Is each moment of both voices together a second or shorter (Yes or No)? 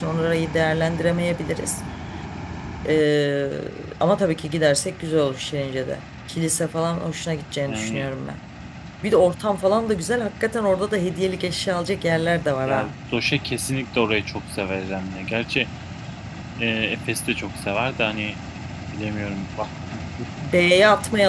Yes